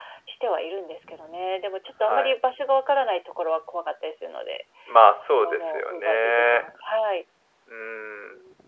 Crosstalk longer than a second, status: present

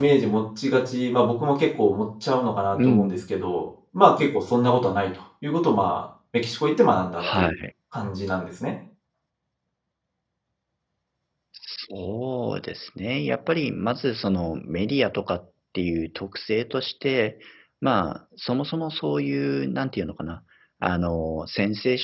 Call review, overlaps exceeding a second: none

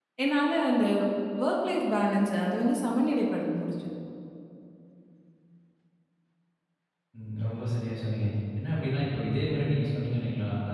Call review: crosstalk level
none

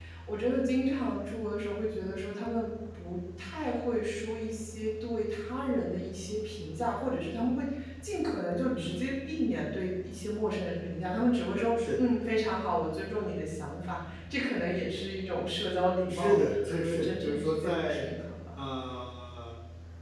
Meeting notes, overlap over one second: present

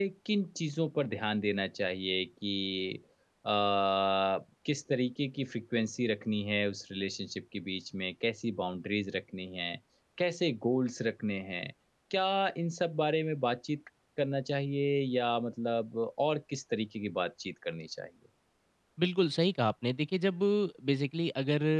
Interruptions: none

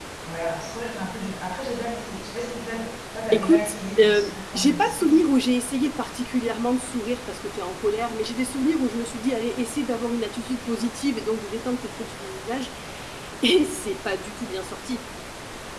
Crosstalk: present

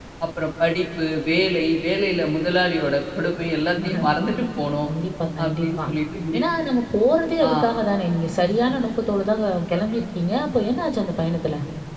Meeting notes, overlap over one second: none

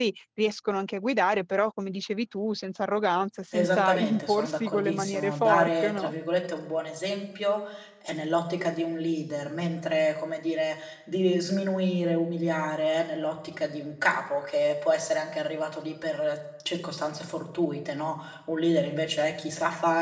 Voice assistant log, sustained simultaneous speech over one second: present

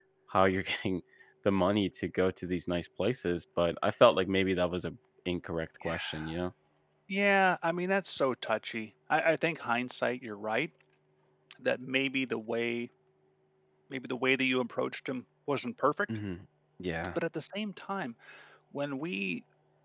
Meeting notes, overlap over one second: none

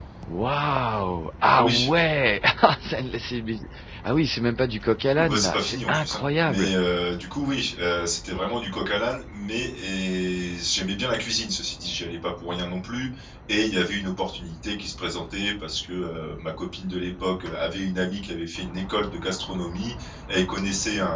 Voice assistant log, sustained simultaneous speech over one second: present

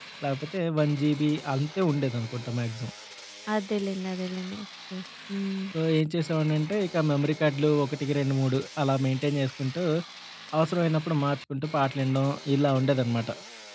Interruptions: none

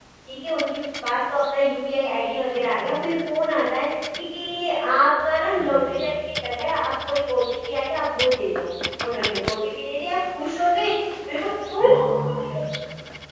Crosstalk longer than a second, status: none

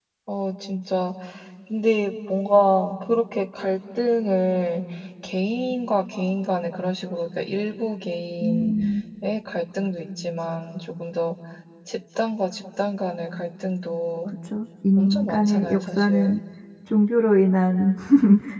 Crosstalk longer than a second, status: present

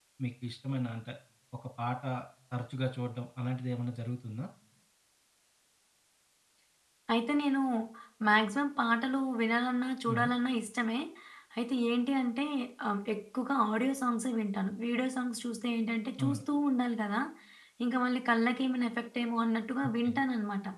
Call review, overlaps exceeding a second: none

